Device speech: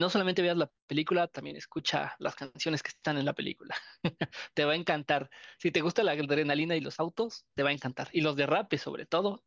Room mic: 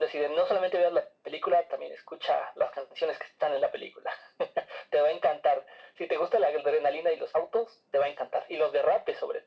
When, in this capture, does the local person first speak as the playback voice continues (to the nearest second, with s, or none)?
none